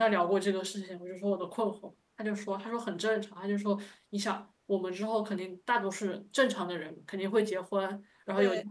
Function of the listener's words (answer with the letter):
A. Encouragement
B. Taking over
A